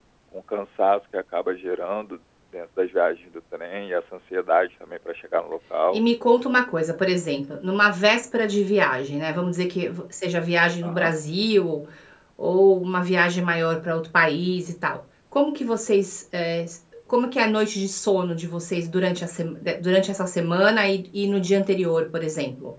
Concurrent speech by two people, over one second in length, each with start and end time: none

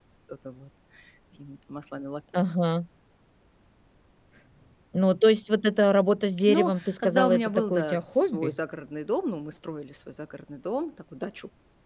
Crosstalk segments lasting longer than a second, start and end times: 6.5-8.6

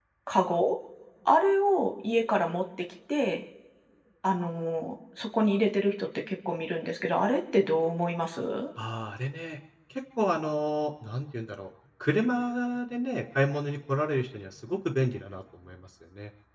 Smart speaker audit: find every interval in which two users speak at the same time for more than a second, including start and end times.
none

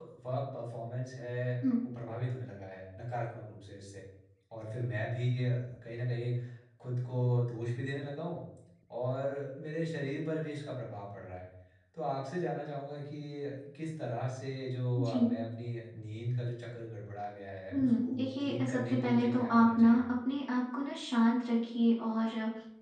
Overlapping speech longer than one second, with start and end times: 17.7-20.0

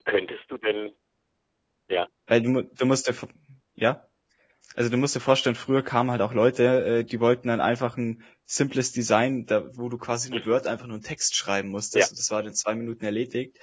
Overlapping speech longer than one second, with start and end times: none

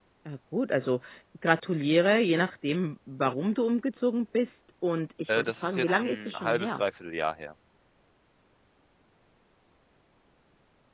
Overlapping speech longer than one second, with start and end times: 5.4-6.8

